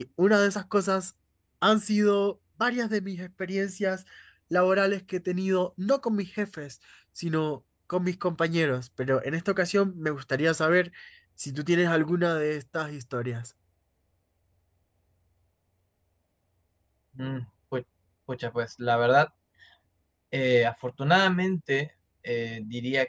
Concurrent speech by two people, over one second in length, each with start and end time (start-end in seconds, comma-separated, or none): none